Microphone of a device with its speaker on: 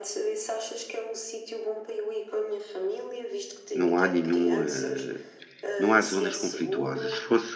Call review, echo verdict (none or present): present